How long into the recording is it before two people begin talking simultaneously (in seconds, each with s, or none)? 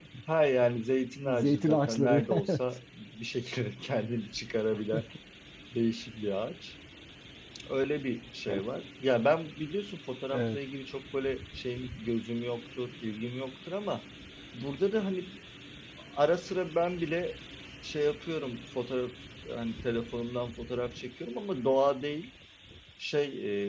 1.2 s